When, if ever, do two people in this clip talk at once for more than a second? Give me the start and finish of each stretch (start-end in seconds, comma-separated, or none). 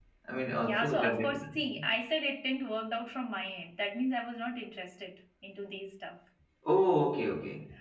0.6-1.8